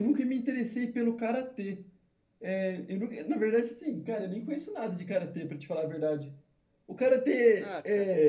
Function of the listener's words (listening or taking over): listening